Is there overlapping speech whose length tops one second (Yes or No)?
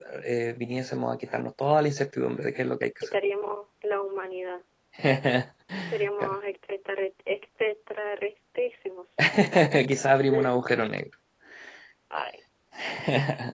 No